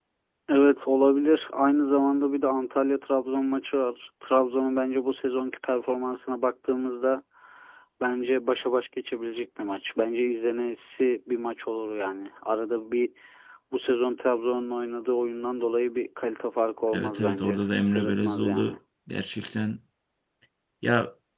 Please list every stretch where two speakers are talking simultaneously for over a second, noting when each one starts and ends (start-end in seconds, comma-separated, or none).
16.9-18.8